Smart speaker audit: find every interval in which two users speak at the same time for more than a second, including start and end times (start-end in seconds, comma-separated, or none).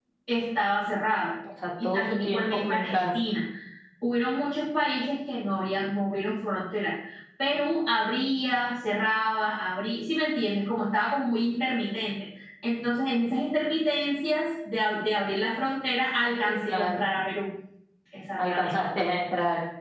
1.8-3.1